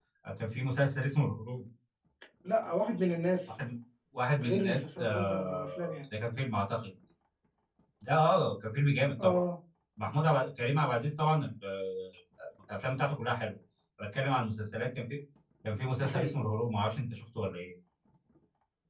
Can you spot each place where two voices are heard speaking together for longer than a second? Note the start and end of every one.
4.4-5.7

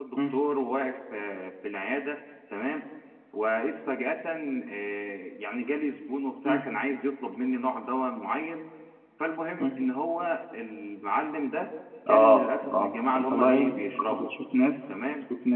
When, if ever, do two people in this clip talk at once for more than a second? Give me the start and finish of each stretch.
12.1-14.3

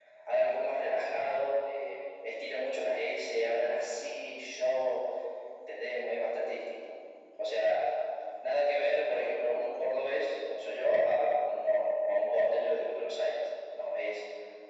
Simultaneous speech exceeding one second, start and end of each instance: none

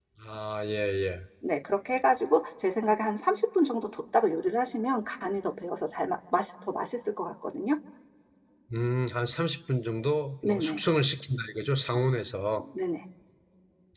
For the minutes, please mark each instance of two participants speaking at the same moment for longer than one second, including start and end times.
none

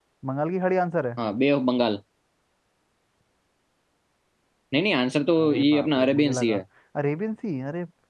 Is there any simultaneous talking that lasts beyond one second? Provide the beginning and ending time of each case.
5.4-6.6

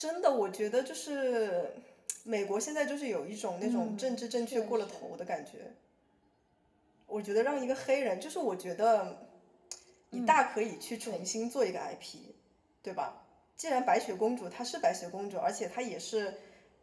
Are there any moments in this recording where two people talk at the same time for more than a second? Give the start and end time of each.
3.6-5.1

